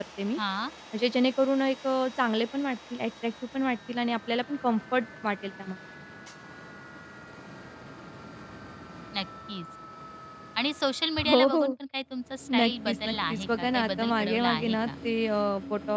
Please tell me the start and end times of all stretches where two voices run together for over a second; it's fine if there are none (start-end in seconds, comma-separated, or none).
12.6-14.9